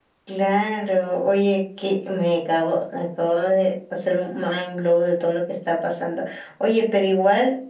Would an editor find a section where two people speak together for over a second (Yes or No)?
No